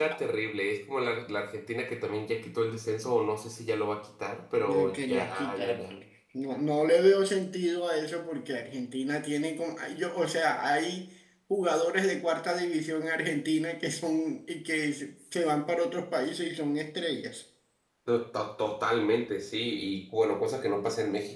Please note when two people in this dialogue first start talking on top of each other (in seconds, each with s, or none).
4.6 s